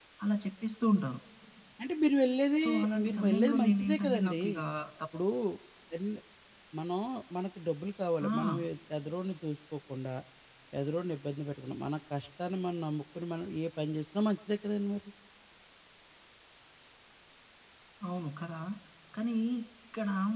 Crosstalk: present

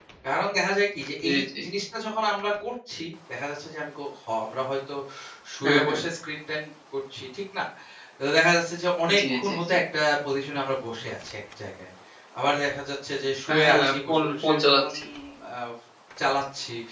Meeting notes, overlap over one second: present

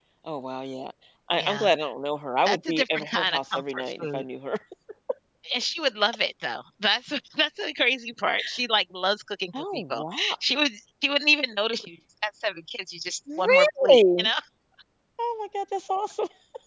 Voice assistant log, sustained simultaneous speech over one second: present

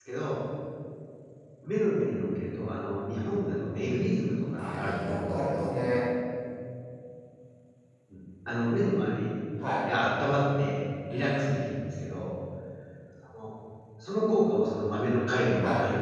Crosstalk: present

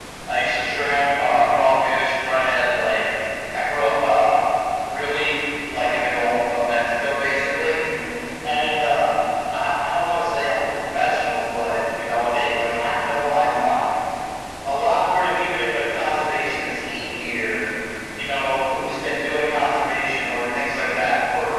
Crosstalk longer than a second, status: none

